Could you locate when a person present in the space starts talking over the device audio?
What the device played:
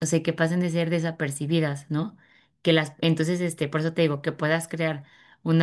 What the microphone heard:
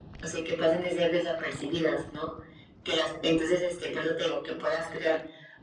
none

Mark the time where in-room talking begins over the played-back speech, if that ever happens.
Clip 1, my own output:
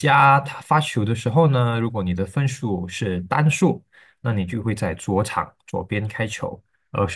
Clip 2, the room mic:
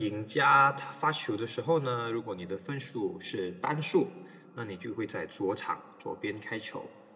none

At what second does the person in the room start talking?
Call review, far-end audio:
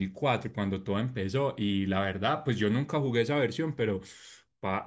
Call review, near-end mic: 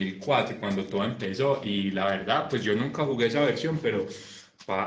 none

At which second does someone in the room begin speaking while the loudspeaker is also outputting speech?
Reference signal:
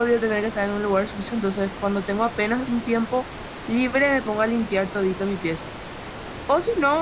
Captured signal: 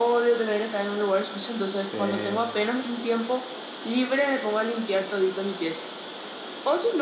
1.9 s

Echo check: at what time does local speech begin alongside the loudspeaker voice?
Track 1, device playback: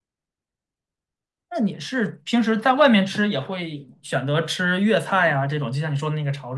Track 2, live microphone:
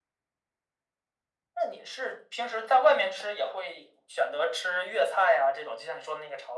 none

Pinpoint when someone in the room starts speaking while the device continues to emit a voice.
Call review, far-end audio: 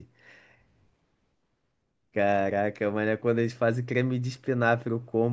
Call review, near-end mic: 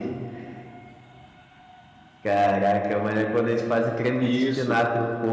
4.2 s

